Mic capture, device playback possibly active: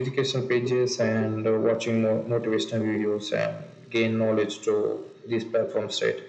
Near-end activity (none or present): none